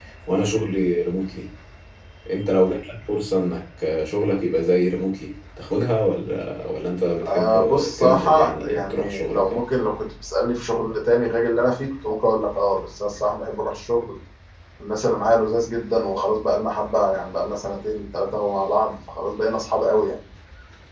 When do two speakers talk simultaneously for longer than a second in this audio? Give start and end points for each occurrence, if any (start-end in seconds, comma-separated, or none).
7.3-9.4